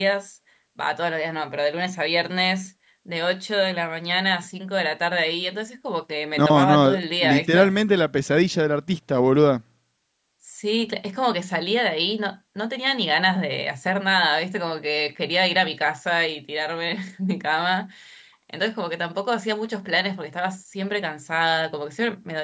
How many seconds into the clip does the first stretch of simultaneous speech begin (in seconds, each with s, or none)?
6.3 s